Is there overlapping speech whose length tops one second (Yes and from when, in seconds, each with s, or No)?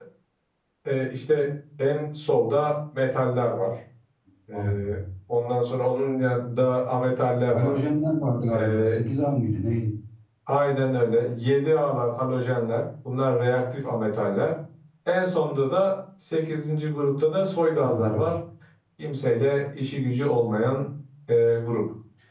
No